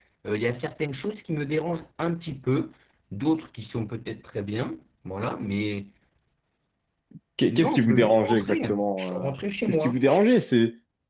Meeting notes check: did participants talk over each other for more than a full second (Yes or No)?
Yes